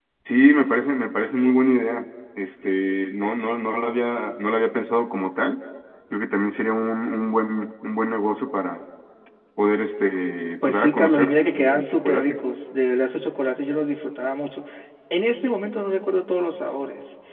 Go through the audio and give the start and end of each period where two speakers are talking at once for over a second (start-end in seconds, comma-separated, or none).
10.7-12.4